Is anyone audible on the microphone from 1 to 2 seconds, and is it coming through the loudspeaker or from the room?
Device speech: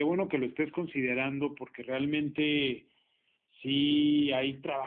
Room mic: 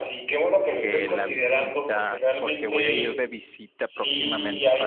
both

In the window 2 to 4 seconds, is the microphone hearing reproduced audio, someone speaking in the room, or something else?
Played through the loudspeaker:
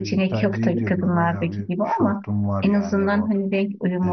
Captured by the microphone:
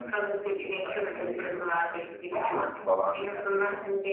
both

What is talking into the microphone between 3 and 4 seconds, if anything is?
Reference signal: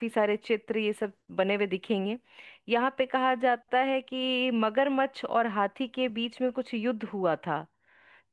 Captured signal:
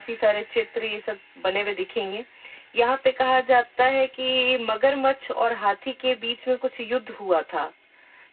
echo only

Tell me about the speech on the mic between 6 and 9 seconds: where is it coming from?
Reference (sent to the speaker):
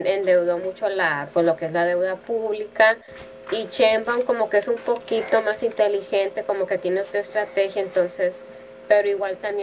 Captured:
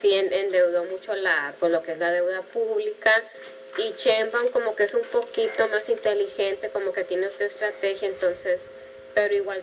echo only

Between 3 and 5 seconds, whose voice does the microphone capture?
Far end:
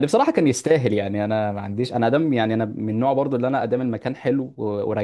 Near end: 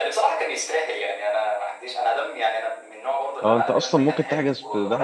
both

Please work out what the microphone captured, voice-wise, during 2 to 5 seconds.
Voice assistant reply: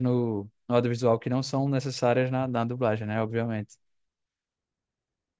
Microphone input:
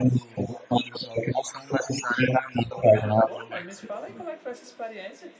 both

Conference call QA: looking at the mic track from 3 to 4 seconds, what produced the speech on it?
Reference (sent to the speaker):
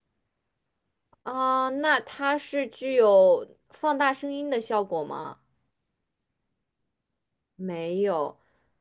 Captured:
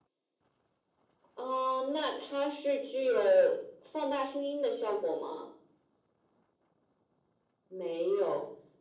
echo only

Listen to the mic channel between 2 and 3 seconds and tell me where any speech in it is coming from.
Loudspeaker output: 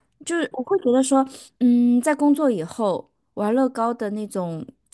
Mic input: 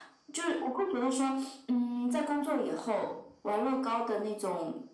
echo only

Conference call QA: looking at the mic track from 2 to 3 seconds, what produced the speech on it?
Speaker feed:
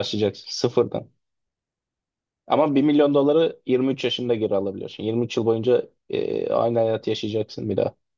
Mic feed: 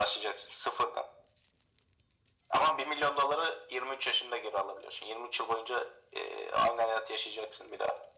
echo only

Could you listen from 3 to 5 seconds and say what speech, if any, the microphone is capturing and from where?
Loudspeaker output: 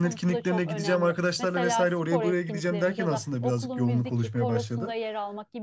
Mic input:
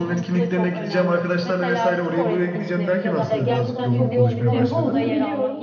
both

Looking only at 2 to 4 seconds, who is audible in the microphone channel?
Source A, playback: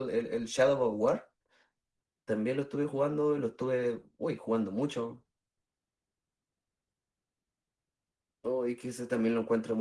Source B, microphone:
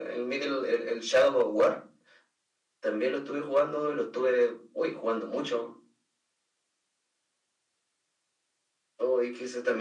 echo only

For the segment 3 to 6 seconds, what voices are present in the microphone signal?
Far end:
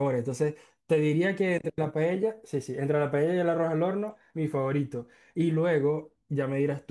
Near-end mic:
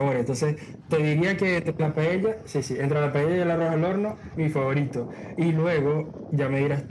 echo only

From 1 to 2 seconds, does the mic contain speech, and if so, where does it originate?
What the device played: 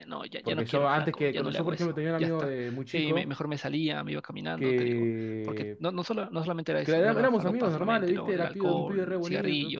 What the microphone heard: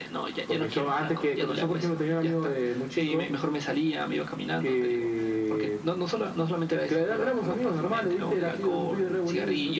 echo only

